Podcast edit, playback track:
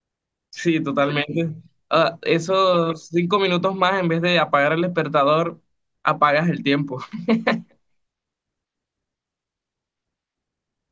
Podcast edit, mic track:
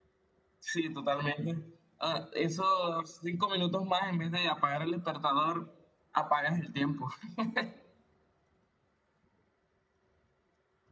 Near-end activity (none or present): none